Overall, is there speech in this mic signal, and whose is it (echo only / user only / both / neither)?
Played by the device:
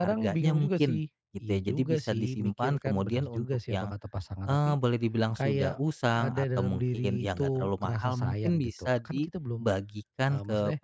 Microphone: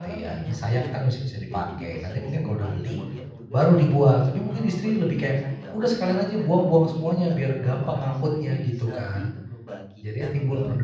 both